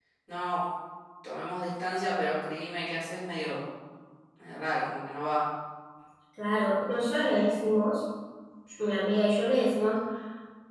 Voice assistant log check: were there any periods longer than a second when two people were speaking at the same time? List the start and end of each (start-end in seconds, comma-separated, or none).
none